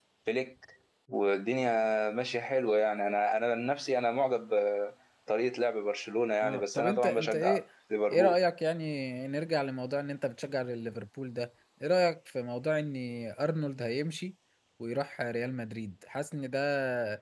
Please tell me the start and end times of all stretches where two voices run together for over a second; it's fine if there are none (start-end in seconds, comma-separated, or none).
6.4-7.6